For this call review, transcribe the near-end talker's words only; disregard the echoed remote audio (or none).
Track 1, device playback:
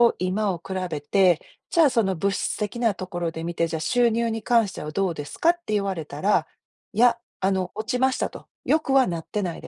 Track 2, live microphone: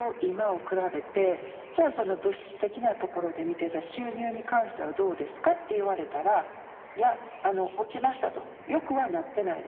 none